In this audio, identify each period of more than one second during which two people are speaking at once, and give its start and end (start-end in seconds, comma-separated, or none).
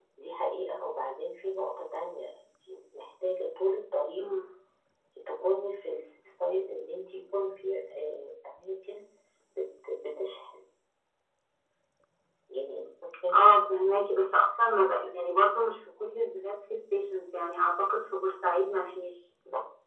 none